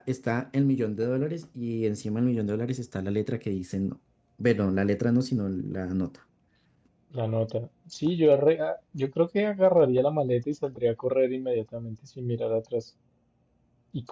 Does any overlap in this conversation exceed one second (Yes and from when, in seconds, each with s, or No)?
No